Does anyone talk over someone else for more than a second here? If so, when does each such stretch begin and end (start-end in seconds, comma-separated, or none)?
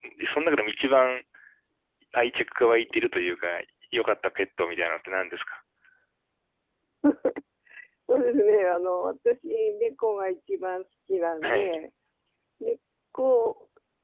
none